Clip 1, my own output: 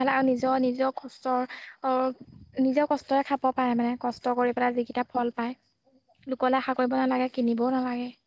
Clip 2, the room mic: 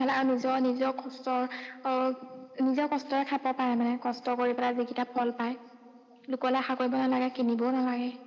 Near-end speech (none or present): none